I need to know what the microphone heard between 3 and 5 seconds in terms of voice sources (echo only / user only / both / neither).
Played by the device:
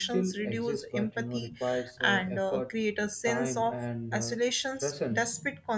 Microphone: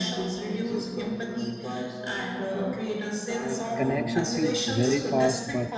both